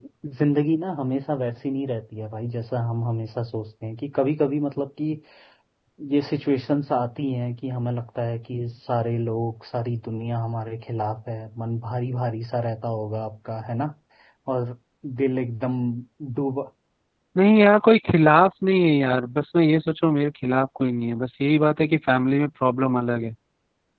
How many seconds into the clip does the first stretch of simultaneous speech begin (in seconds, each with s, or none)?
none